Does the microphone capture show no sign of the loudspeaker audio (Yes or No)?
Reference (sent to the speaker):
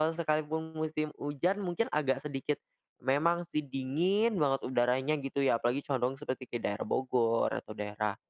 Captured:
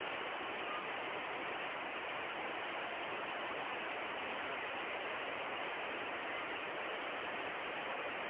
Yes